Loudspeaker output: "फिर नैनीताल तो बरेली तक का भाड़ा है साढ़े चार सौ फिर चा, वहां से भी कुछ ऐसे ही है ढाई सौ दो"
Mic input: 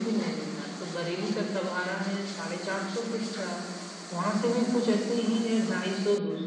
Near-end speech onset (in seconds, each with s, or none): none